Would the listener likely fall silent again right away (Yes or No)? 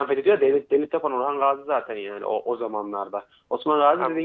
Yes